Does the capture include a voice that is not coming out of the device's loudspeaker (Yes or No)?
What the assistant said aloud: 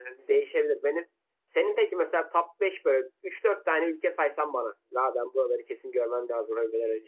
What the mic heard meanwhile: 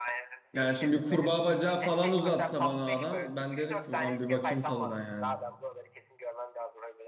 Yes